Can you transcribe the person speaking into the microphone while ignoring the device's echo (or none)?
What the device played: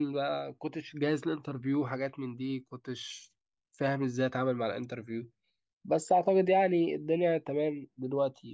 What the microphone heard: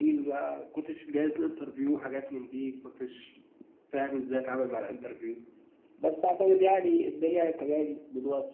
none